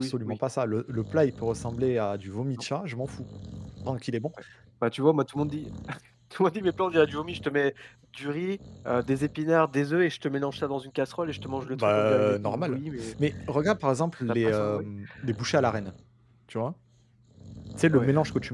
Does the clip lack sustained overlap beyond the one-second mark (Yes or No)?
No